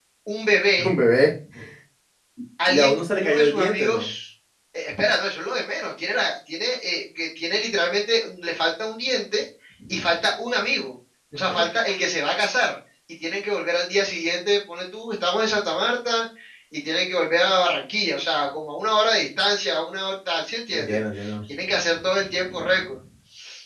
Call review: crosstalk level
present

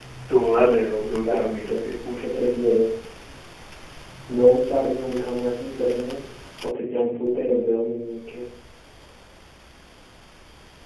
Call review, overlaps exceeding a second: present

